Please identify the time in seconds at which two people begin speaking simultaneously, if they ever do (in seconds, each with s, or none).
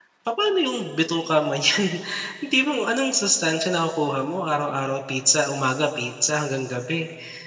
none